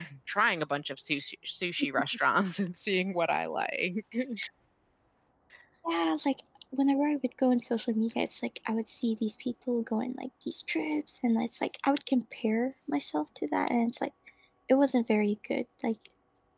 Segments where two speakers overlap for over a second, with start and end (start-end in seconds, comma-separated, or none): none